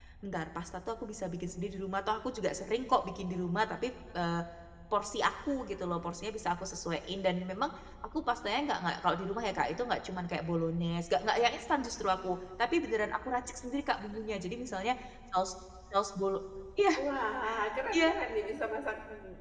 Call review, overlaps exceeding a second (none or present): none